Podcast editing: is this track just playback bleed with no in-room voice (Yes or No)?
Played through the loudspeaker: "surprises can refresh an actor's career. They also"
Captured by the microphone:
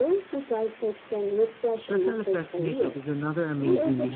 No